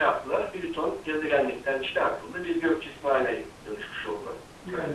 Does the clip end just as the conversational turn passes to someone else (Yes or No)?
Yes